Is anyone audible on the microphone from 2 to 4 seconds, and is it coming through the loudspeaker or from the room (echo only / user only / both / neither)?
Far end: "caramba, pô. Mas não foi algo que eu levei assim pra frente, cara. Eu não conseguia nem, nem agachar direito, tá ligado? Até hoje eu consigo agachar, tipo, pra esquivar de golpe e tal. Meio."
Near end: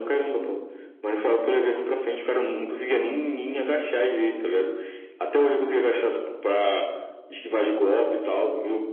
echo only